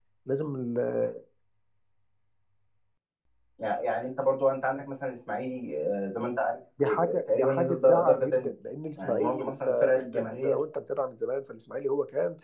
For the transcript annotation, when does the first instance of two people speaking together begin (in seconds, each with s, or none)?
6.8 s